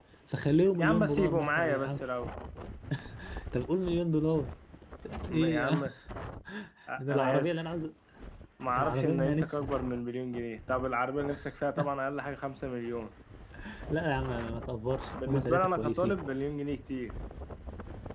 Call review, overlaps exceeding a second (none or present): present